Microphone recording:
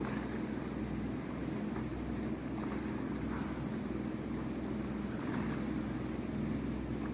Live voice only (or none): none